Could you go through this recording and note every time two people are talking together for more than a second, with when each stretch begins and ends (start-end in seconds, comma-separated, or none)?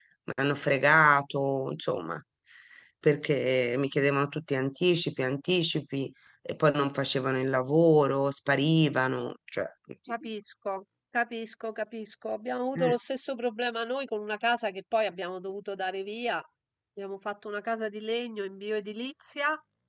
none